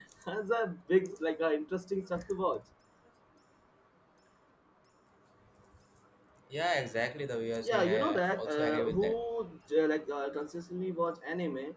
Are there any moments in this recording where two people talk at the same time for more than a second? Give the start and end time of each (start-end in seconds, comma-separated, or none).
7.6-9.0